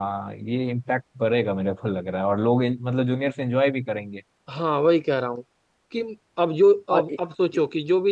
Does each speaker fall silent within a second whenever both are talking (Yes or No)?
Yes